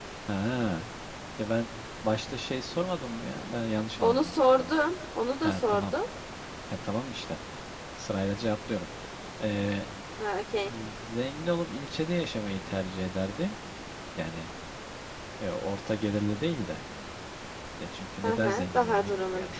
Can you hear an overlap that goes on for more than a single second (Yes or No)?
Yes